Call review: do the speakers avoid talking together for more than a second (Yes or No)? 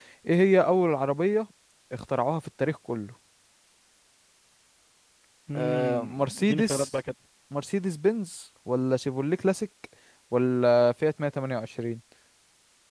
No